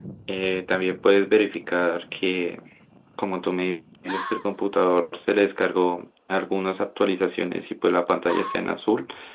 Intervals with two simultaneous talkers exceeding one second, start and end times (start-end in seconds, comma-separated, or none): none